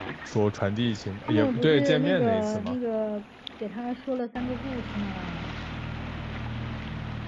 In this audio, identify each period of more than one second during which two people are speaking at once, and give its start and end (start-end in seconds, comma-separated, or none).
1.2-2.8